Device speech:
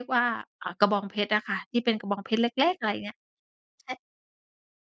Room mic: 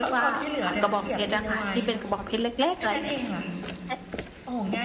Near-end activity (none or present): present